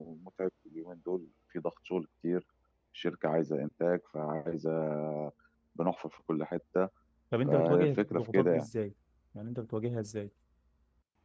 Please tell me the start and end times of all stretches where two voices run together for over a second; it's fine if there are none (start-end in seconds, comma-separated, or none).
7.5-8.7